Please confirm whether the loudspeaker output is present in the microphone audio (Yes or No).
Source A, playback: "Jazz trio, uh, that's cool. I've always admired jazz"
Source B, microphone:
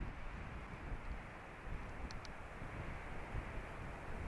No